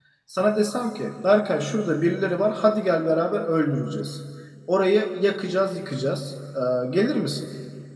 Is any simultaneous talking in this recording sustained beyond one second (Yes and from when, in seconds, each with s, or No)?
No